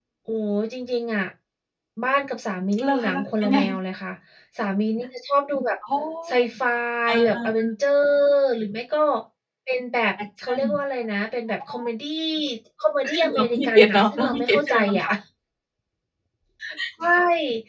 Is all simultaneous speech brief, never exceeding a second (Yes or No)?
No